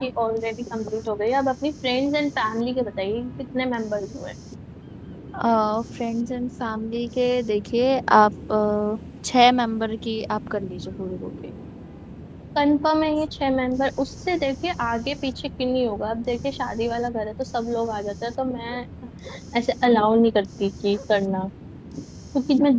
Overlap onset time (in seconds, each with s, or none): none